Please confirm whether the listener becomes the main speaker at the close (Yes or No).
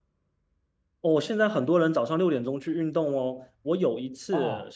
No